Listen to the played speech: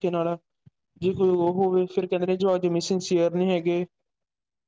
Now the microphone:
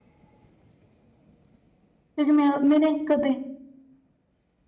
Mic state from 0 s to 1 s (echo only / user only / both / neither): neither